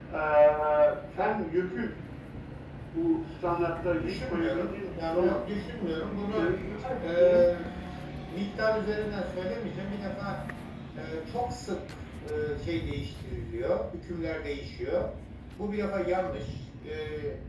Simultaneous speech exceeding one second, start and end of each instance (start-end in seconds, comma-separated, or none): 4.0-5.4